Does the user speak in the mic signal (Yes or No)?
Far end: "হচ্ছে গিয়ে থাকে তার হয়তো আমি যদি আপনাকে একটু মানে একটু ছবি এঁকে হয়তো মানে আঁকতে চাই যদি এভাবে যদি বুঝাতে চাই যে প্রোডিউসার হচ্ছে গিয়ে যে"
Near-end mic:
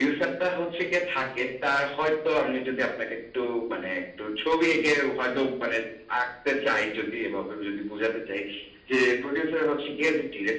No